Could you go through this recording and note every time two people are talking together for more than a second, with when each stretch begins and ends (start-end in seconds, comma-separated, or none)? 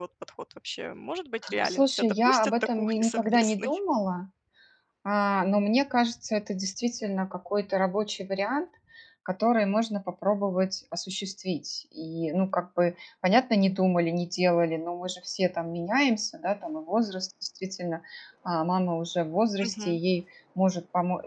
1.6-3.8